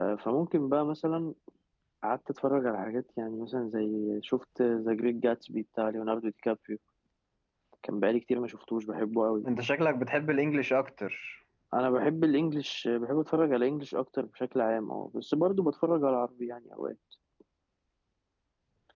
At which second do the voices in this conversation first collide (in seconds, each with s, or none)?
none